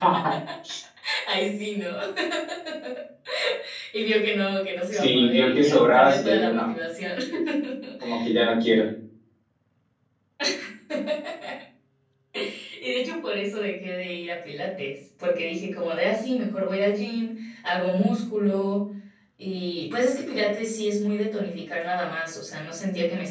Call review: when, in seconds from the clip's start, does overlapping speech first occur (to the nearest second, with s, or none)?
5 s